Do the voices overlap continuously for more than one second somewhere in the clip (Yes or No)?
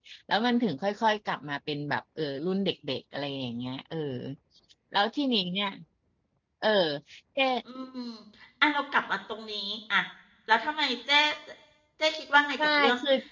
No